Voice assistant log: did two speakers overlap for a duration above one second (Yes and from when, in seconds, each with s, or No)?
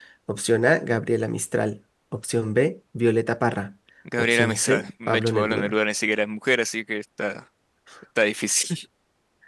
Yes, from 4.2 s